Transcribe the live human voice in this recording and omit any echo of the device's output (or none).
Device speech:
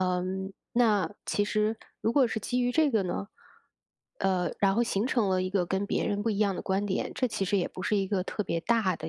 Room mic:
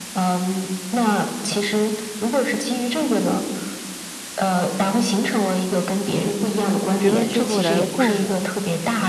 别人就会来问我。